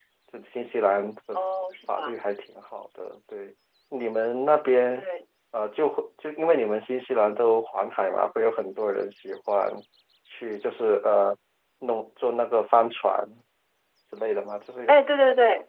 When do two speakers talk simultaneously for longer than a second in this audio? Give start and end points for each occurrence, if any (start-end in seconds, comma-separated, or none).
none